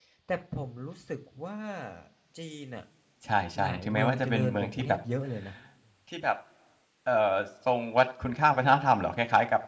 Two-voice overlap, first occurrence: 3.6 s

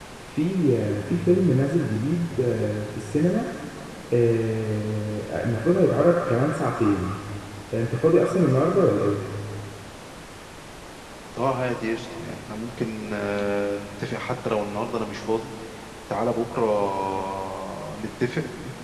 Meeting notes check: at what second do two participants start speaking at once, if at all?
none

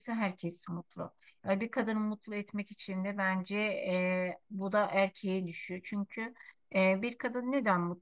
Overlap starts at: none

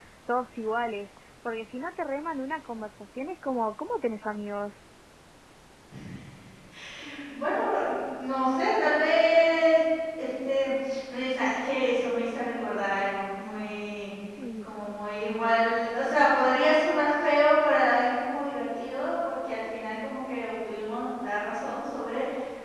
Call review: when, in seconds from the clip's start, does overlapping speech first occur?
none

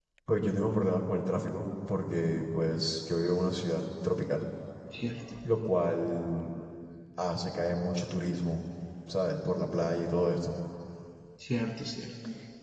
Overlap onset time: none

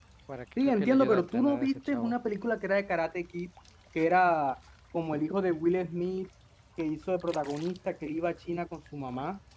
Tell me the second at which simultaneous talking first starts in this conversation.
0.6 s

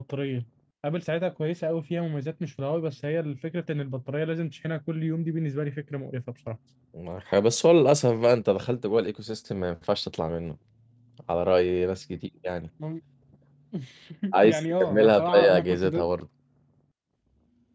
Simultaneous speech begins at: 14.4 s

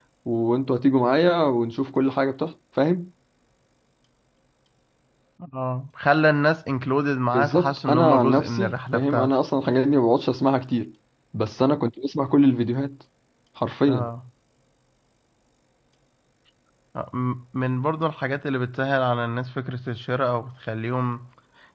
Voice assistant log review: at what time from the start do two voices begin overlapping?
7.3 s

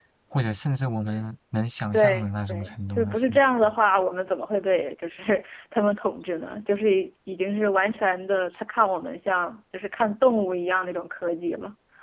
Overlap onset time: 1.9 s

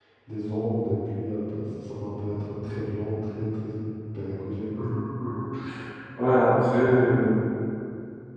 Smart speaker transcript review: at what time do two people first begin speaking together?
none

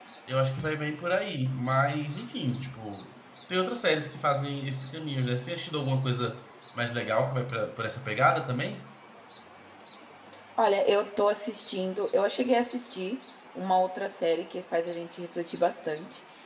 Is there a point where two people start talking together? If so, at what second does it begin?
none

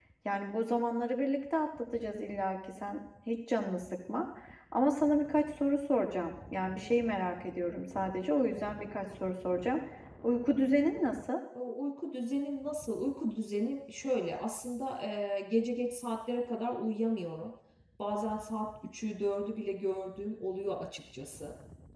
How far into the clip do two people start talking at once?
none

